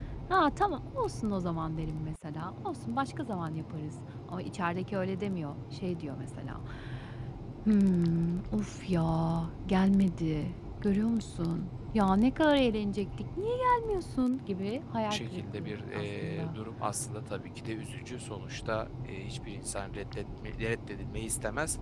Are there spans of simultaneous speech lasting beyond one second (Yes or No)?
Yes